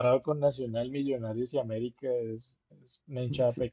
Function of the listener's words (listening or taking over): taking over